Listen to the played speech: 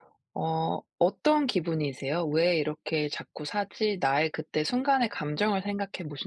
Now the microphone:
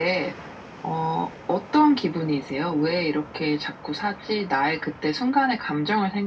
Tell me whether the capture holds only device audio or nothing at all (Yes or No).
Yes